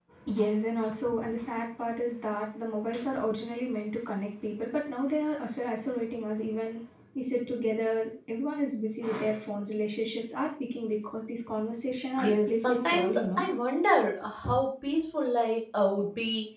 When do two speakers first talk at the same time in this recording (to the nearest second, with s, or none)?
12 s